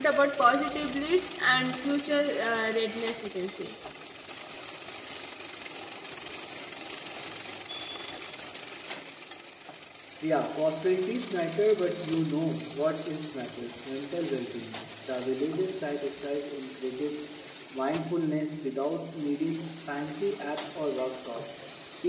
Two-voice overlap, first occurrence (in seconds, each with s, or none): none